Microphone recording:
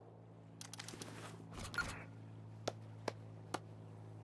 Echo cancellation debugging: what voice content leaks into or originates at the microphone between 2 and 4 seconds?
neither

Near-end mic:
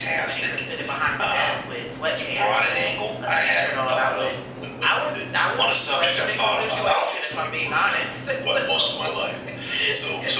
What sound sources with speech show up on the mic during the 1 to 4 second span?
echo only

